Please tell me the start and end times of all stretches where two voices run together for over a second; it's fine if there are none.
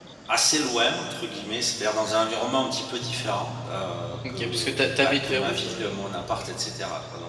4.3-5.8

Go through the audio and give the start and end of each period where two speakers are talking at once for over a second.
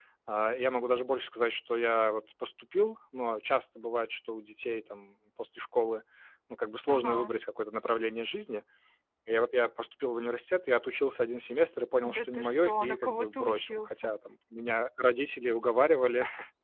12.0-14.1

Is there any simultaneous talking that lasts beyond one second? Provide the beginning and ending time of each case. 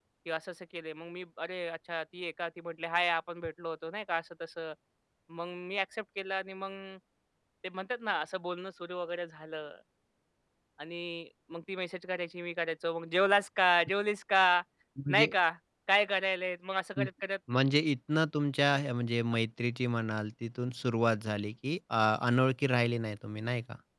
none

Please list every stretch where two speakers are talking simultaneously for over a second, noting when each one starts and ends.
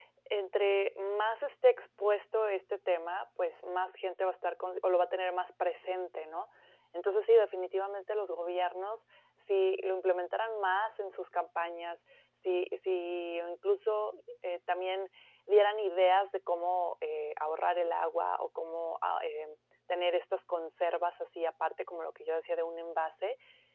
none

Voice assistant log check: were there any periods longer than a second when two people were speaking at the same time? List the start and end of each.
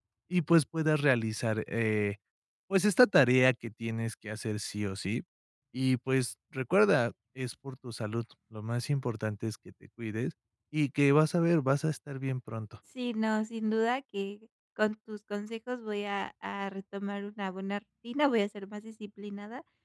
none

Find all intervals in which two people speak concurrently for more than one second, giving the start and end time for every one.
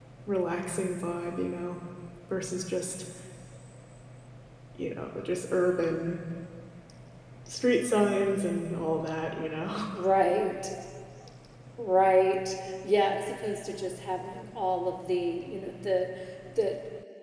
none

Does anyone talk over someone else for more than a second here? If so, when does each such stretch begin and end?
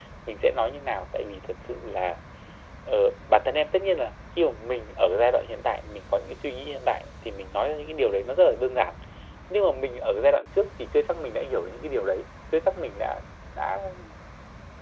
none

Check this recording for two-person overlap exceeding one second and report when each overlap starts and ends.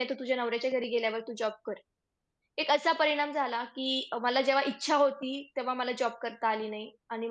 none

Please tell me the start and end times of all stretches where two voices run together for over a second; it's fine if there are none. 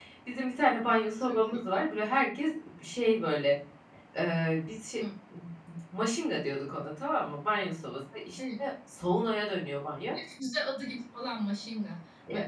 none

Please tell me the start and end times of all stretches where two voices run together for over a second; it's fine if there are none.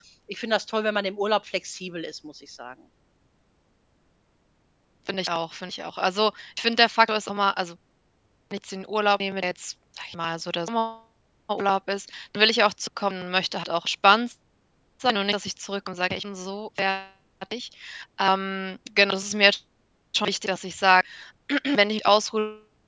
none

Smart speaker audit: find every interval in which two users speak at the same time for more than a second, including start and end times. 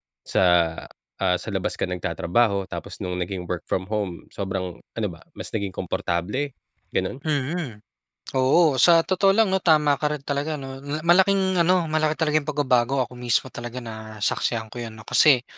none

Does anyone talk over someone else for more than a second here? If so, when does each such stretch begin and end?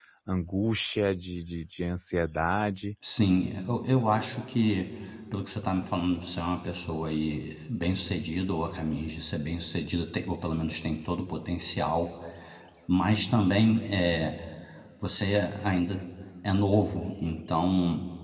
none

